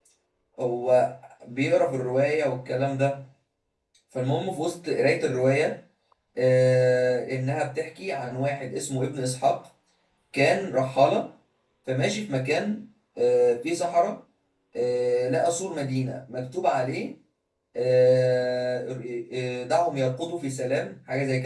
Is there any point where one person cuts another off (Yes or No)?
No